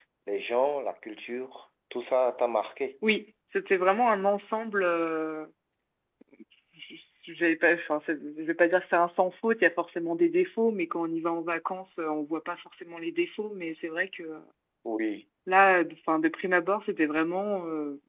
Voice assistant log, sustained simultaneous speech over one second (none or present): none